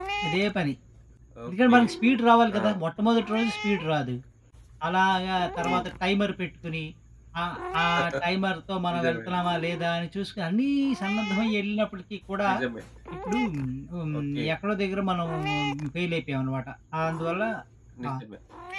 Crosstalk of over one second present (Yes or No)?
No